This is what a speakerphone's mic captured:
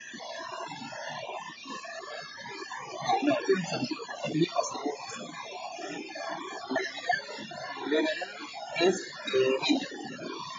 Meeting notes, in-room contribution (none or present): none